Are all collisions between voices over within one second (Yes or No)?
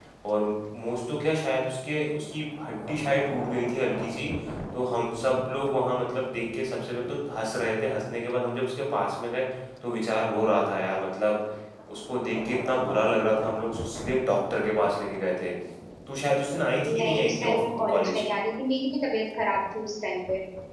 No